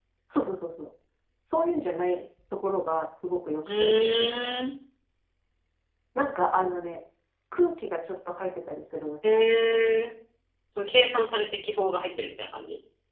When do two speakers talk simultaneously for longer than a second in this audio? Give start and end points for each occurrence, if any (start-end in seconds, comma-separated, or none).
none